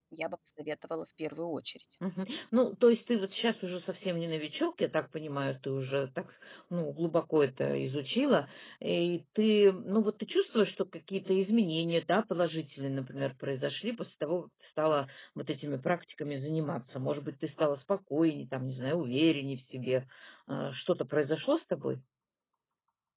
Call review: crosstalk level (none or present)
none